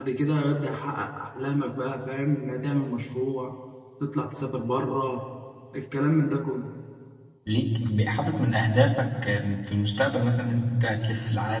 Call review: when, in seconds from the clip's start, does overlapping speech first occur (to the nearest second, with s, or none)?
none